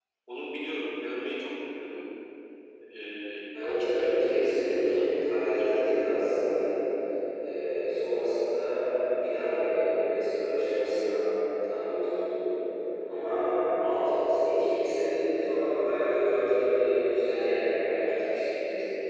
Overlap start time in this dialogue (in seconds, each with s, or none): 3.6 s